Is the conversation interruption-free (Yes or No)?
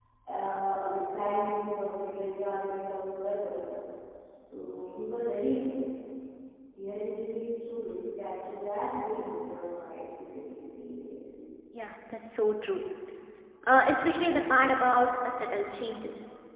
Yes